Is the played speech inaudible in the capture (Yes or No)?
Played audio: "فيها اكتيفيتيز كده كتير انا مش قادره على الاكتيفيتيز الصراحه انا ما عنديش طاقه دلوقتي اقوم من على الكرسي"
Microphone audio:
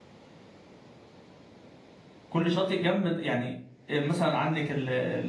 Yes